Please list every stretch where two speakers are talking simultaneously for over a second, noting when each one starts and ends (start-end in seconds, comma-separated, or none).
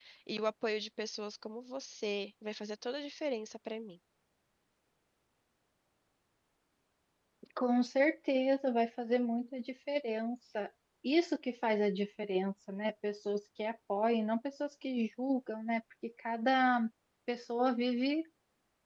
none